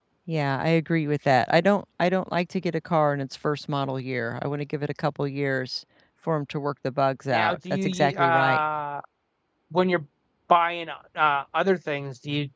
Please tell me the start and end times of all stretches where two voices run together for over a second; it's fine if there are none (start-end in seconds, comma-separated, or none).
7.3-8.6